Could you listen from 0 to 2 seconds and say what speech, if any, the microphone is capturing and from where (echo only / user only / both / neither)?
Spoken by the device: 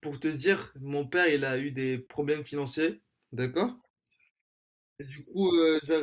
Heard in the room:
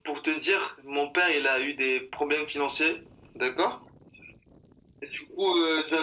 echo only